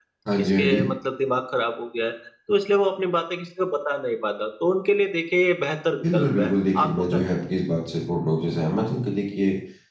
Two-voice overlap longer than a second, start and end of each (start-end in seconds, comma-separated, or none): 6.0-7.3